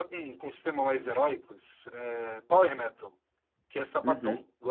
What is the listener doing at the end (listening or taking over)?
listening